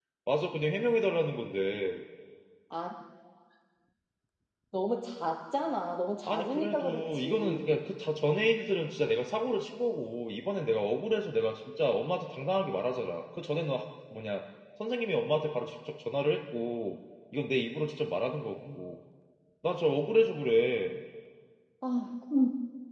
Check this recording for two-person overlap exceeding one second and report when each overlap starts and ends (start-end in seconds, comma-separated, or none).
6.2-7.8